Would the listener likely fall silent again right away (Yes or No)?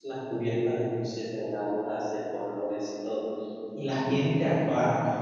Yes